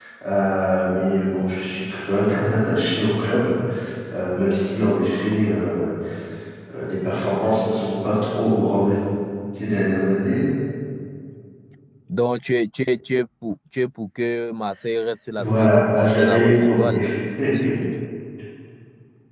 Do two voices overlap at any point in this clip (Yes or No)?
Yes